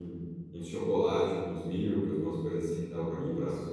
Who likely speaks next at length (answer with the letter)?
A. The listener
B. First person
A